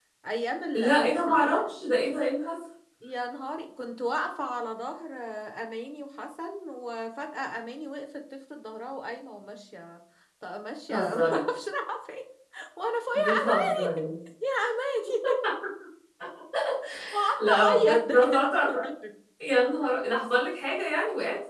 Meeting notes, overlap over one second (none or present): present